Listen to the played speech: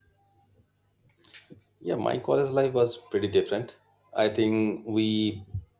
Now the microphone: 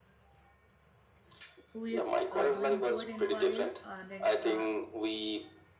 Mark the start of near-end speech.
1.7 s

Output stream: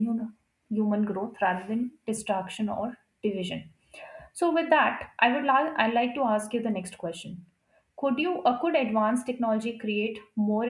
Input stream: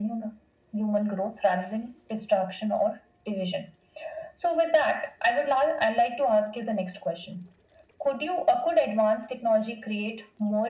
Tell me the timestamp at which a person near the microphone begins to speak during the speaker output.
none

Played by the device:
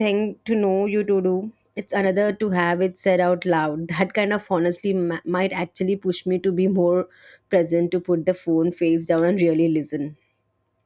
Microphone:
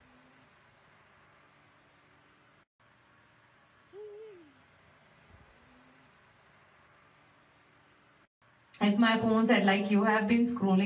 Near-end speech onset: 8.8 s

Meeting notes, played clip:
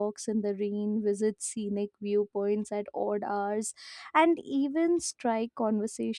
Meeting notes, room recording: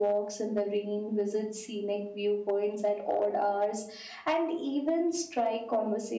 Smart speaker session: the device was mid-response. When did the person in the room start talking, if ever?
none

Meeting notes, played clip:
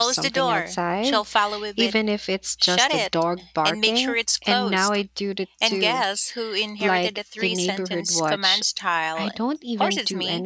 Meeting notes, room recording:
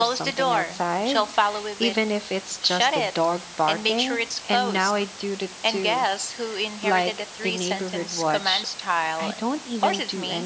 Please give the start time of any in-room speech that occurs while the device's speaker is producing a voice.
none

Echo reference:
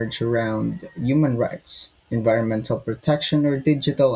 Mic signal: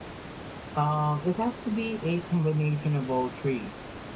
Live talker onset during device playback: 0.7 s

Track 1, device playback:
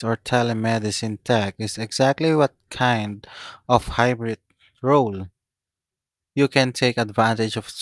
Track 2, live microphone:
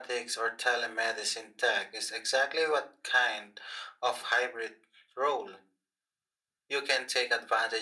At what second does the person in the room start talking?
none

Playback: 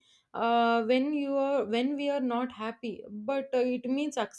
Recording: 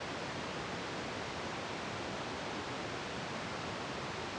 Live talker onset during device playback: none

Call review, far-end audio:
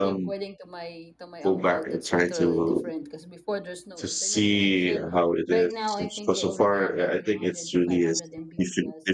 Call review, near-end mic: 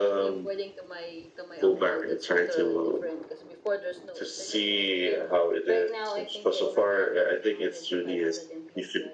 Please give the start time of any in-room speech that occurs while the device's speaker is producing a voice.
none

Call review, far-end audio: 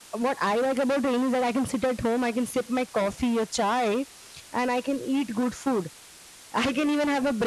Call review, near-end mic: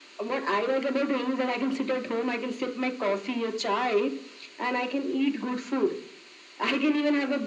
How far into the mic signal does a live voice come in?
none

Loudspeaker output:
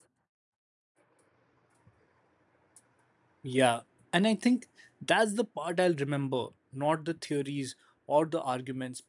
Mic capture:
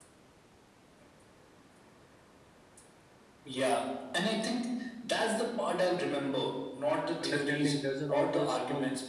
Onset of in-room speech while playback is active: 7.2 s

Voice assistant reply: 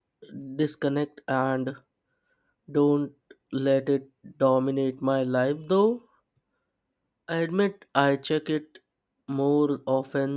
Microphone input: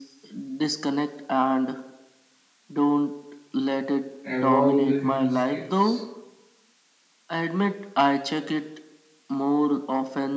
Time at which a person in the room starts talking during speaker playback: 4.2 s

